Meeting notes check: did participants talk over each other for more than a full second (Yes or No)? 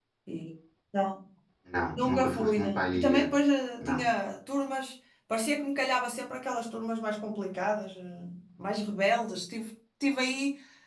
Yes